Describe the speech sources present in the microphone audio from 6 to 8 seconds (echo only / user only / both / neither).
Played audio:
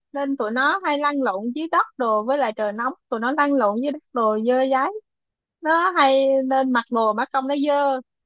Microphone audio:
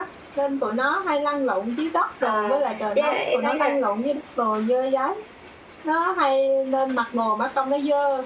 echo only